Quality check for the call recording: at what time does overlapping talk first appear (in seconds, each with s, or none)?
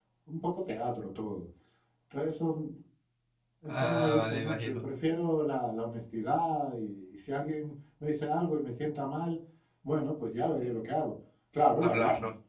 3.7 s